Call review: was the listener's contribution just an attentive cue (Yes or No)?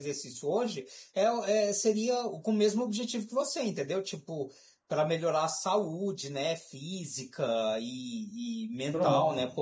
Yes